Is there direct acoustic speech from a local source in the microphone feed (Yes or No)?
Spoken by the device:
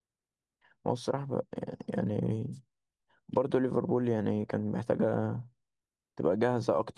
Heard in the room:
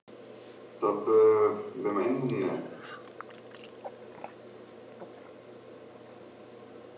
Yes